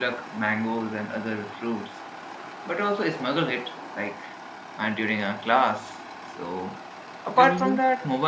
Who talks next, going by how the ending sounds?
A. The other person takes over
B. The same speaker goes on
B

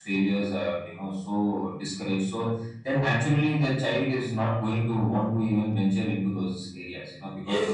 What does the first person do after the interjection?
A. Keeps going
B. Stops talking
B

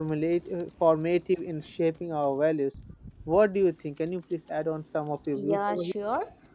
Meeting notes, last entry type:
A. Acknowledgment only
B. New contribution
B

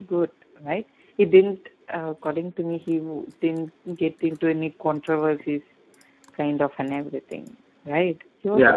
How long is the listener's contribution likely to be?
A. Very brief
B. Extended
B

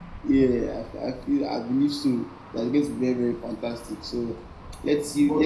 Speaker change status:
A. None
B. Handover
A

